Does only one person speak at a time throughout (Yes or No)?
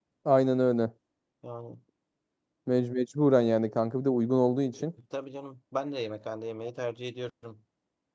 Yes